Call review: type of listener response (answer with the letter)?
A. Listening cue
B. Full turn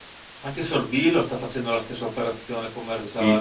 B